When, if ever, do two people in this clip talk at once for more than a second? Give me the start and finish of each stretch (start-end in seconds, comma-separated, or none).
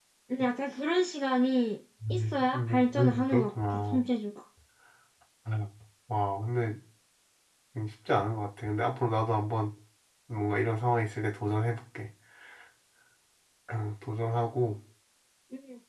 2.1-4.0